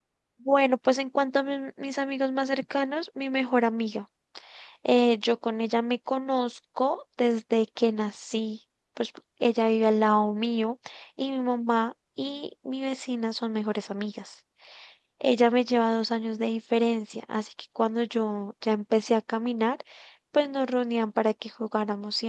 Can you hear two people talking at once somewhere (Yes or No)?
No